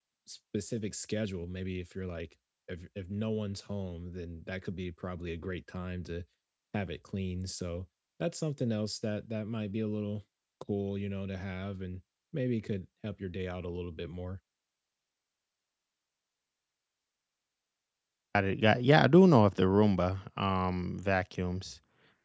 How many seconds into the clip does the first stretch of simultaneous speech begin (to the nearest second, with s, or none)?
none